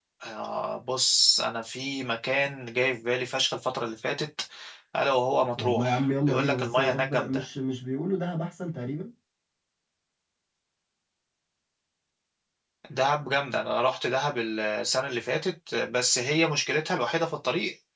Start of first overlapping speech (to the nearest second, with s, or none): 6 s